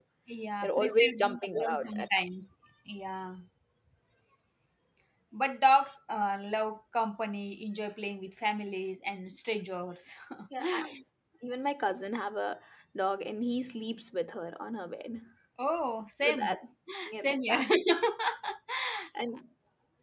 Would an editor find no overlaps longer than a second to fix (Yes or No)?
No